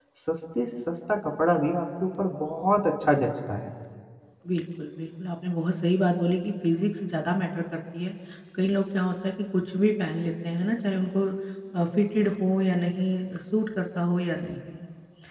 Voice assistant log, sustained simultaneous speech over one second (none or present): none